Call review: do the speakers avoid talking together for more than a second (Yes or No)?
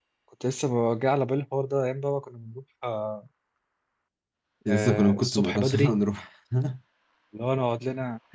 No